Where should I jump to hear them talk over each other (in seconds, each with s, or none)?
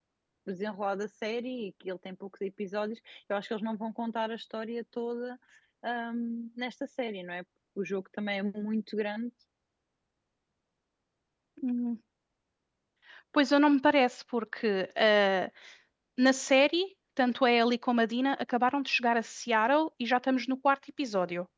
none